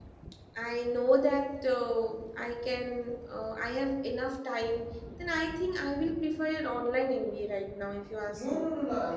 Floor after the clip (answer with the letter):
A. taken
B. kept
A